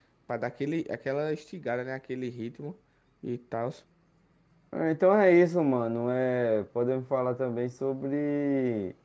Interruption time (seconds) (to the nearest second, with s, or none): none